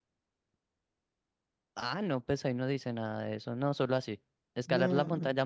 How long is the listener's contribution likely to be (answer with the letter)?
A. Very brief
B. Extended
A